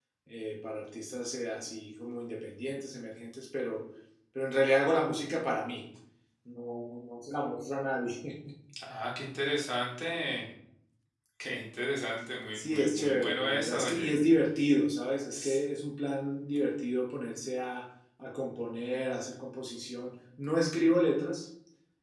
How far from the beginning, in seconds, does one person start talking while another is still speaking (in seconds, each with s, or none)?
12.5 s